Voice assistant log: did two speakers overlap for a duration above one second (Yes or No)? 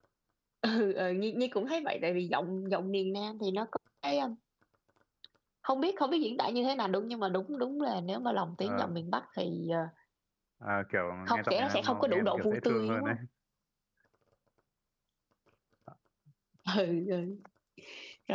Yes